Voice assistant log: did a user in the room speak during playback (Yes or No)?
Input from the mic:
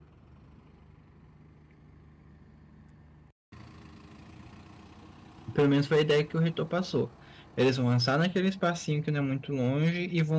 Yes